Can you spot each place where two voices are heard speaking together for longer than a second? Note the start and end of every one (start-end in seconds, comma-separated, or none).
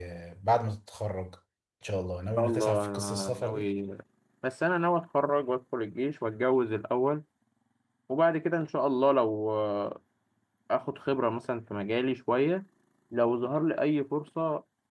2.4-3.7